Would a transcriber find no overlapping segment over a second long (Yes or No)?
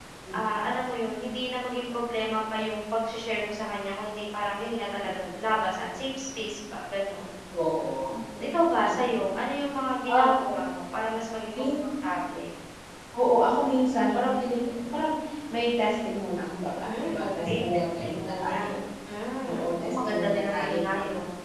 No